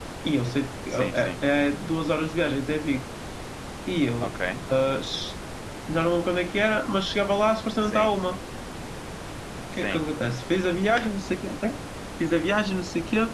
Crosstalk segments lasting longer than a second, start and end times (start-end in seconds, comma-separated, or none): none